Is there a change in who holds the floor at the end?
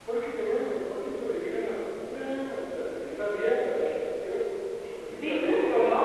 Yes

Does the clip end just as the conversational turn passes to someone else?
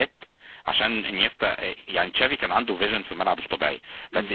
No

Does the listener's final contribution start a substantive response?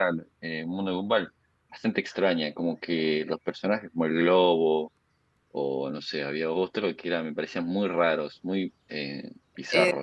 Yes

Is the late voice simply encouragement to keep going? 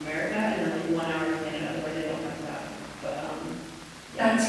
No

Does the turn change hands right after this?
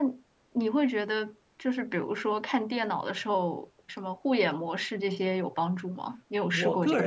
Yes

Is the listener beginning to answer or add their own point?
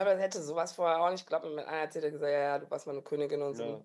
No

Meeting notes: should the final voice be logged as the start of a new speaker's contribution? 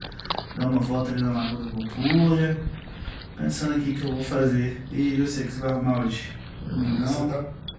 Yes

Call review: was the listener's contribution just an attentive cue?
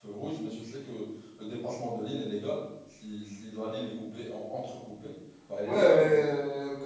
No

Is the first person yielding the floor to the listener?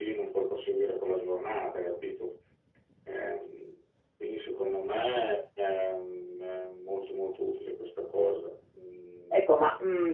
Yes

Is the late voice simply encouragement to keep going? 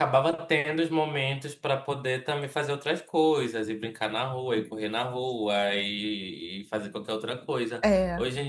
Yes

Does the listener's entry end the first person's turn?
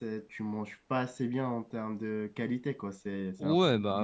Yes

